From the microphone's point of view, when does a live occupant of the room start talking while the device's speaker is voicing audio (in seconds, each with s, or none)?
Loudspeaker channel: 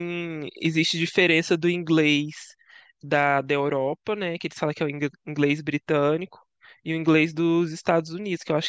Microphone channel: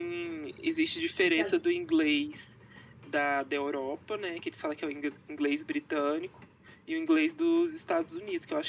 1.2 s